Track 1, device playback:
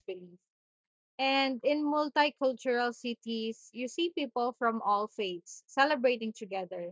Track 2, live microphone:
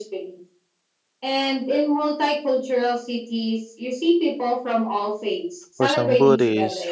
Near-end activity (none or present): present